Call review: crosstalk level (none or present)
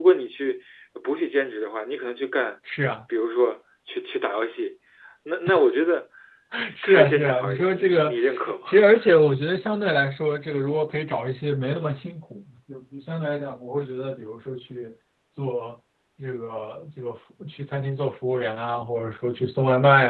present